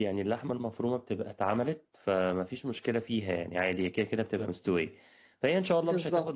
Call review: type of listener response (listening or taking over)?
listening